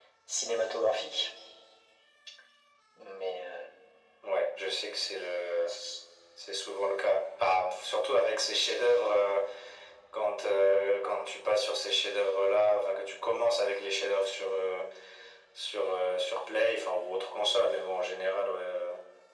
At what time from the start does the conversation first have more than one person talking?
none

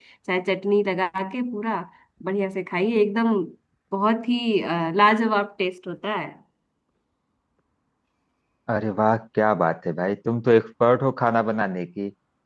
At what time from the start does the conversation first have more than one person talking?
none

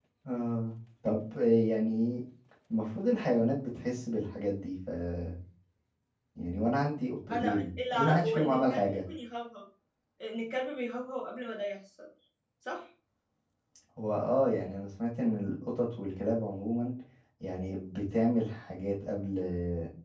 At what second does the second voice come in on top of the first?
7.3 s

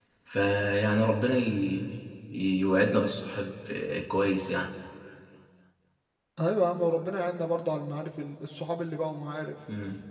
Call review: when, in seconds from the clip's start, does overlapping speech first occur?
none

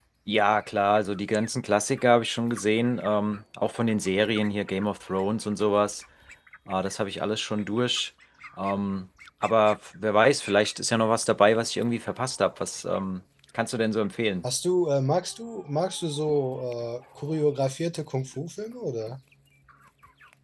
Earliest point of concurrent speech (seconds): none

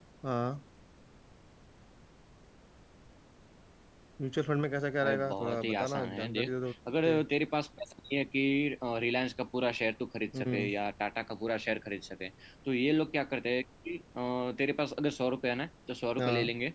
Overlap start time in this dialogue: 5.0 s

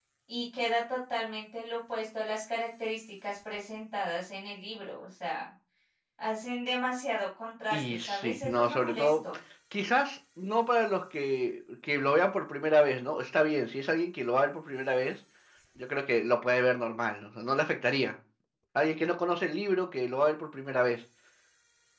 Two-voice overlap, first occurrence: 7.7 s

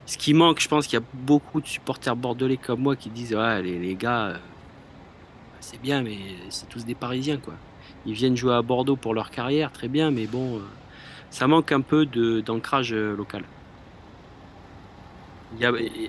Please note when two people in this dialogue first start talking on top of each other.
none

